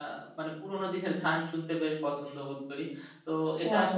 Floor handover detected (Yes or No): No